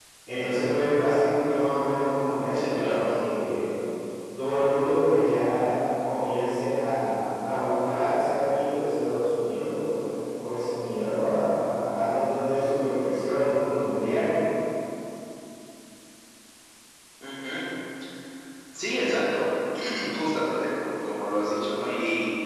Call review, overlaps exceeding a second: none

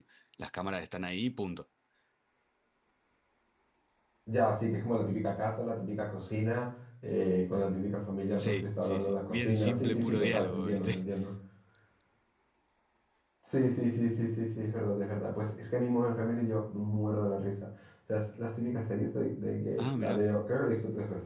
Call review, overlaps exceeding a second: present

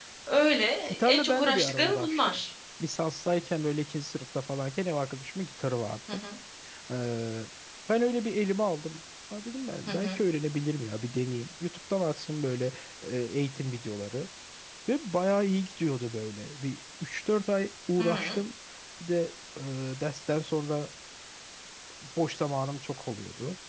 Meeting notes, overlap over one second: present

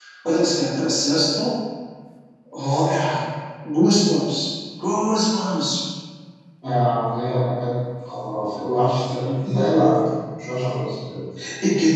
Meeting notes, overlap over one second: none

